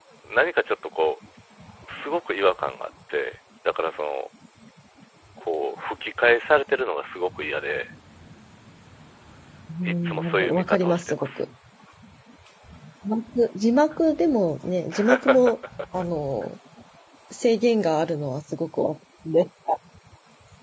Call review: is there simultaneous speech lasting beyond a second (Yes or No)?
Yes